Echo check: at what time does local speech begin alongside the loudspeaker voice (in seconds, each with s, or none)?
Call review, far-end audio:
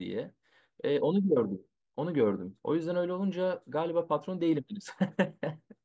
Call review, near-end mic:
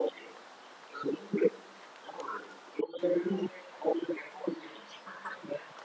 none